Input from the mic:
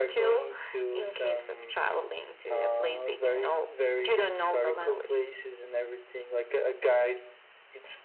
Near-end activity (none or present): none